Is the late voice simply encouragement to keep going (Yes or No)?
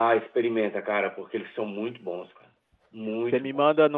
No